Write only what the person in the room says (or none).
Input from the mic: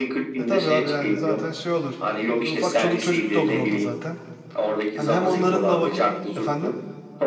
E tabii abi yani zaten şey olur. Hani ufak çoluk çocuk da olur orada zaten. Hani hem onların da vakit efendim.